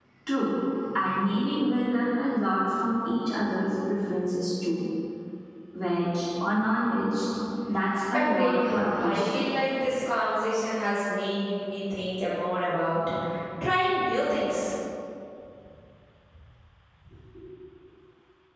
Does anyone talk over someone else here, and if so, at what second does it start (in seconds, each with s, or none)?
8.1 s